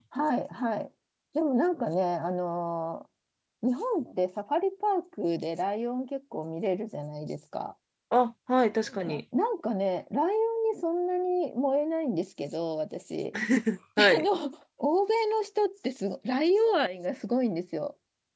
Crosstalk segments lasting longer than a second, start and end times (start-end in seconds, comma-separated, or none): none